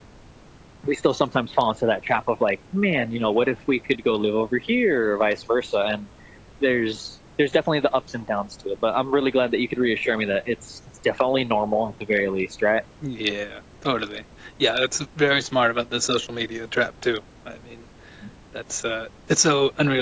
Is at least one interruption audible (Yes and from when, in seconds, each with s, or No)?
No